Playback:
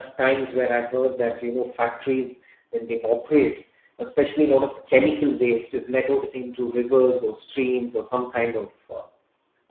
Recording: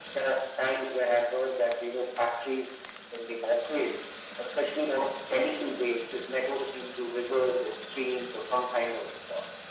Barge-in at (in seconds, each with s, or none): none